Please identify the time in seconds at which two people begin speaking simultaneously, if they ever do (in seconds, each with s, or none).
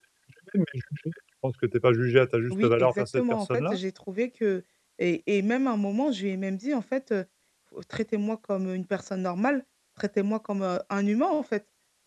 2.5 s